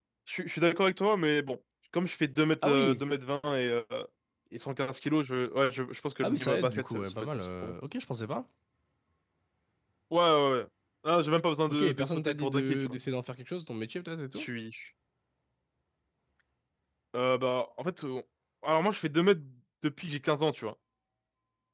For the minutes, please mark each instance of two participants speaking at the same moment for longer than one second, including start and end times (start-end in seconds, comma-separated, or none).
6.2-7.7, 11.7-13.0